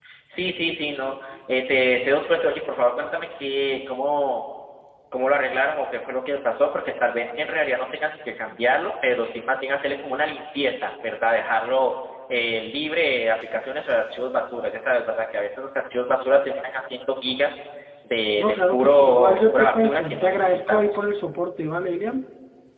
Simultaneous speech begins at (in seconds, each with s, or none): 18.4 s